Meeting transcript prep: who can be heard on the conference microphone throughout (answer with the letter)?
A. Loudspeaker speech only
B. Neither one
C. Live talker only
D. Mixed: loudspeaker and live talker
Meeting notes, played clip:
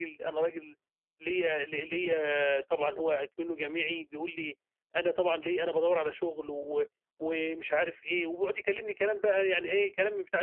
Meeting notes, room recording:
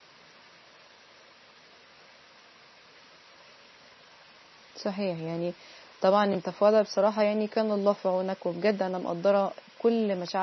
C